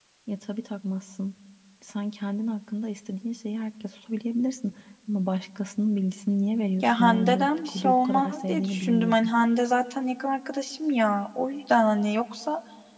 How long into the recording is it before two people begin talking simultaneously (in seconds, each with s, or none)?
6.8 s